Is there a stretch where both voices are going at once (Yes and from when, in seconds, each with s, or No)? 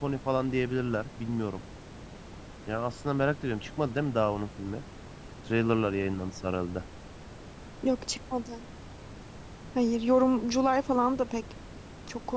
No